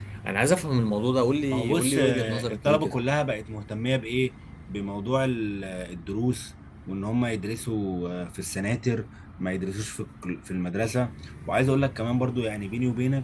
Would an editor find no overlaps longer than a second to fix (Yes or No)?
No